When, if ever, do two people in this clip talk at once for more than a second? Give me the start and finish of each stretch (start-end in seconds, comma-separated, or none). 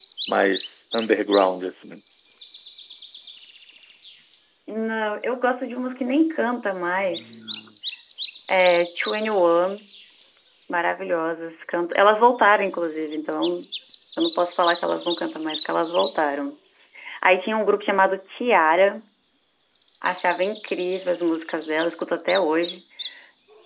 none